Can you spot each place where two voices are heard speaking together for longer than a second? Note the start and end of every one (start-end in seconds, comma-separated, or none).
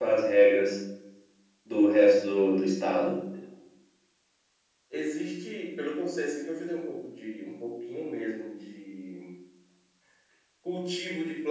none